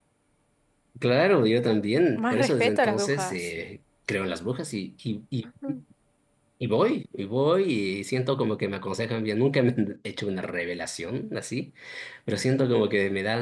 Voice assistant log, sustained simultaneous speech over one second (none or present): present